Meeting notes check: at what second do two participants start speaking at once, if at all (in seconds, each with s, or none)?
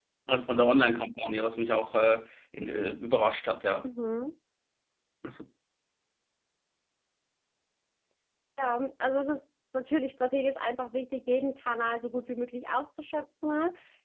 none